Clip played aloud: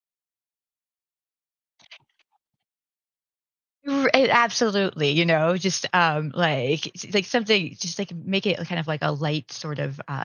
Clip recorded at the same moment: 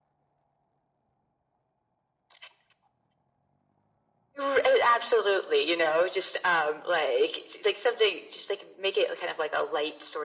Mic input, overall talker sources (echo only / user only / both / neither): echo only